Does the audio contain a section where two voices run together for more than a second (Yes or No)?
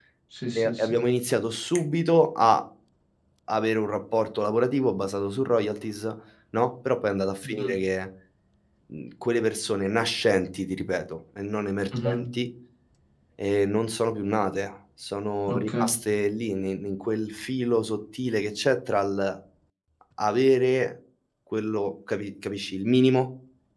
No